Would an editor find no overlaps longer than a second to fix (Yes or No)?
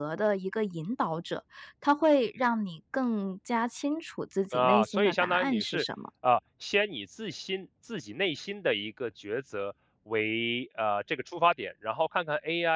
No